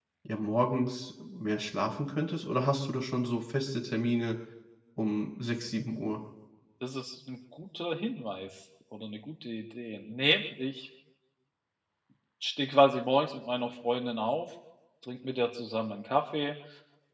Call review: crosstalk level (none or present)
none